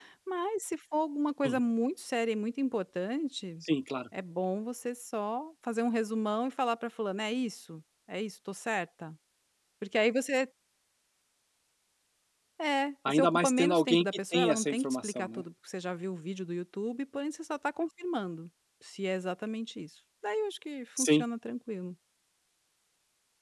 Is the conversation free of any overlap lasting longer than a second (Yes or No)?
No